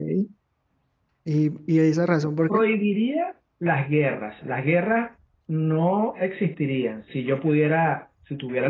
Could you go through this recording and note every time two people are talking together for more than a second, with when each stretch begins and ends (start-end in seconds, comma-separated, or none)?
none